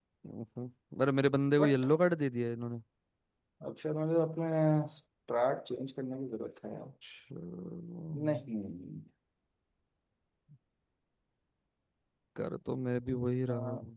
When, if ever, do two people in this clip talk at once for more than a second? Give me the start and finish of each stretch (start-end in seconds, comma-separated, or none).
none